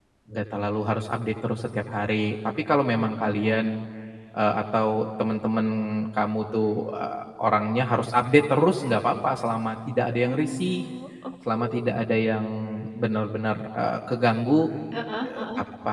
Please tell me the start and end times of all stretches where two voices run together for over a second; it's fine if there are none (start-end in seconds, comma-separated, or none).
none